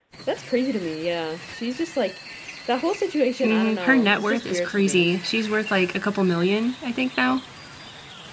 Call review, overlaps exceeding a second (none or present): present